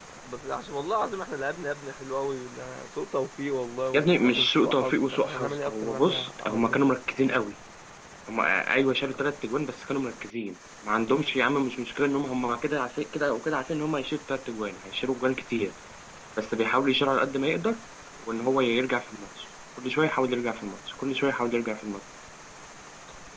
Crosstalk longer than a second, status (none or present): present